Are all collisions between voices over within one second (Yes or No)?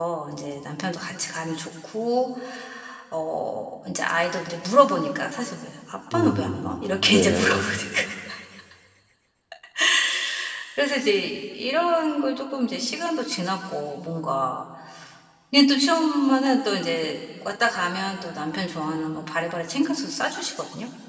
No